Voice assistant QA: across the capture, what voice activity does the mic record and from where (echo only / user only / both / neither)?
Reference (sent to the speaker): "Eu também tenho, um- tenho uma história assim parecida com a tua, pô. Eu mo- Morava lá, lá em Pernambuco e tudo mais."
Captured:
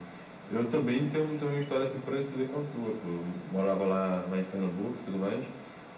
echo only